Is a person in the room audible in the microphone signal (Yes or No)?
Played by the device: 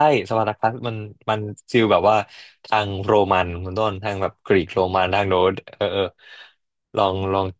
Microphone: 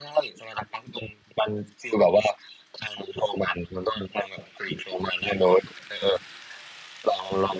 No